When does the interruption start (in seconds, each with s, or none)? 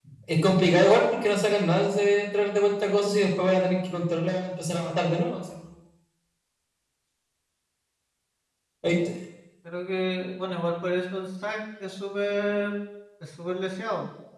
none